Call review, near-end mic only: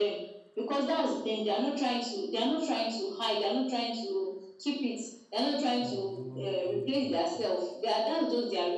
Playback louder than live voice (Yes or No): Yes